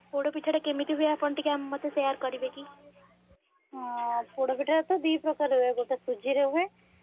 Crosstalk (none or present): none